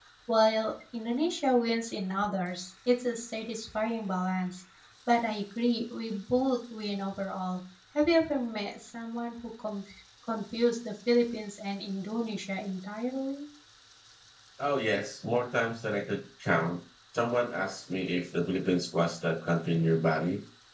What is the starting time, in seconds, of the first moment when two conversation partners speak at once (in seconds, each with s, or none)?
none